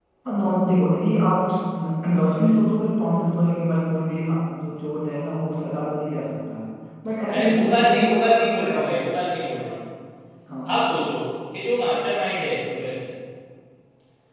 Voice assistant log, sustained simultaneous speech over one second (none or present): present